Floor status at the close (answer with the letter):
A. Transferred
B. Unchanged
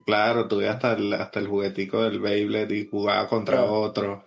A